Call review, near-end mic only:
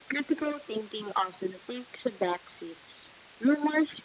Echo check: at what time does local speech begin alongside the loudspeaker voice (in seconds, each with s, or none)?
none